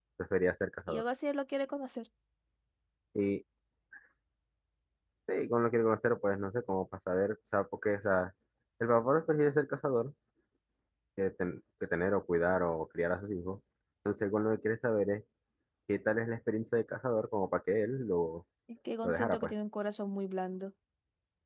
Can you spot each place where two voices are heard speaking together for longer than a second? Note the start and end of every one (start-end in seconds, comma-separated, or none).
none